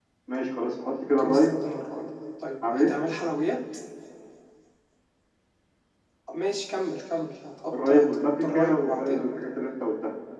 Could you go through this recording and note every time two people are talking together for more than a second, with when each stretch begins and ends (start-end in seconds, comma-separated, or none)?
7.9-9.2